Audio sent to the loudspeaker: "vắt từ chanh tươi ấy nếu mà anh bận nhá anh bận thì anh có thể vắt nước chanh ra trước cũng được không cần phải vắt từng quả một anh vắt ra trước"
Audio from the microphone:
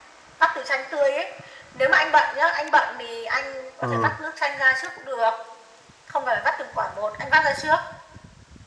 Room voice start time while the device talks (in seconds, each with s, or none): 3.8 s